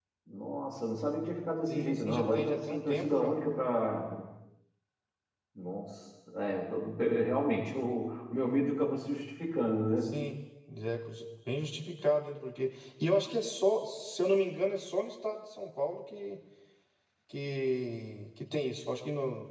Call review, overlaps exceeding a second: present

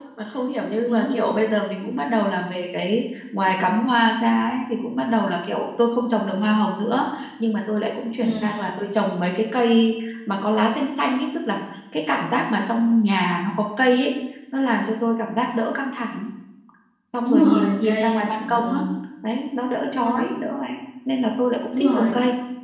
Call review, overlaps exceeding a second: present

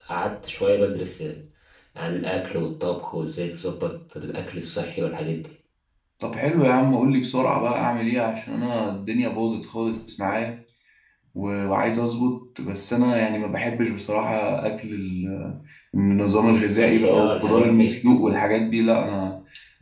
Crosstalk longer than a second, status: present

